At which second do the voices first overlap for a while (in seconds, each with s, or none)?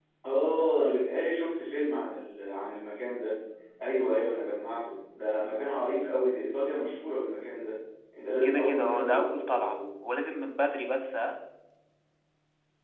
8.4 s